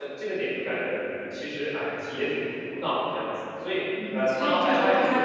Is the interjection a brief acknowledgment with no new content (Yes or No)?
No